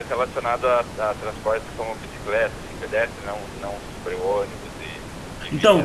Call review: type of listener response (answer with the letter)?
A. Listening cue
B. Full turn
B